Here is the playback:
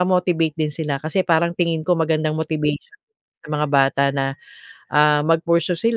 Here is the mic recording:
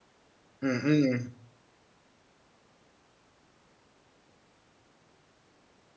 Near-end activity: present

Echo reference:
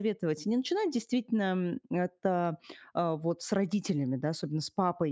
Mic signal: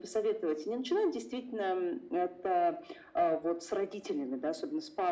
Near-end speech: none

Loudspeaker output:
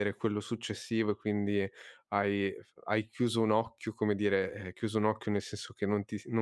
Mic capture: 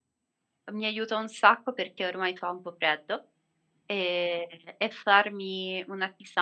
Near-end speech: present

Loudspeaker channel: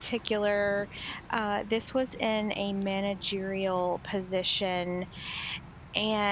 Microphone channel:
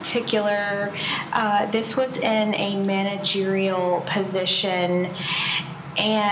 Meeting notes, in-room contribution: none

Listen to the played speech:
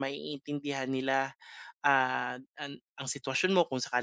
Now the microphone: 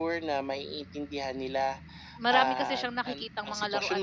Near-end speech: present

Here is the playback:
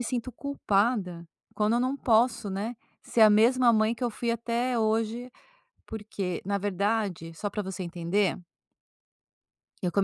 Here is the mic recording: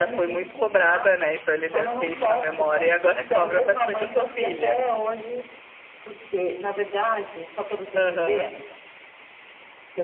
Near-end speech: present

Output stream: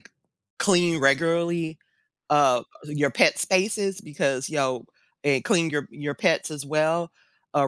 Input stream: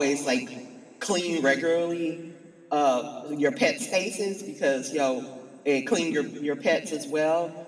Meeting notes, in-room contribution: none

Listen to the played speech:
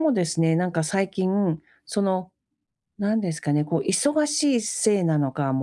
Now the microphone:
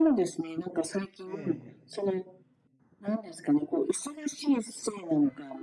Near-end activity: present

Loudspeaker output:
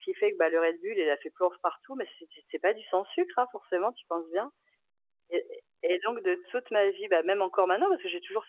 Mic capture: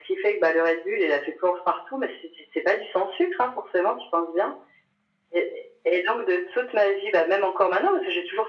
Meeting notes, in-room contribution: none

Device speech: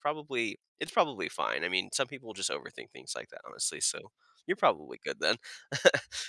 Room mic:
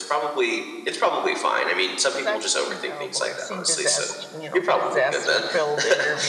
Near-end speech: present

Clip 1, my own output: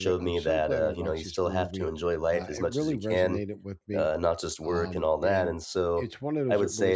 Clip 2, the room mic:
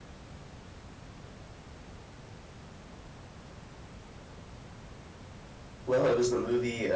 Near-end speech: present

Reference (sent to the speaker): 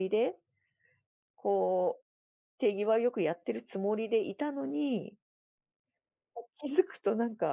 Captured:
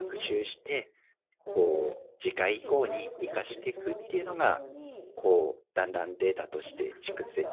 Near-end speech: present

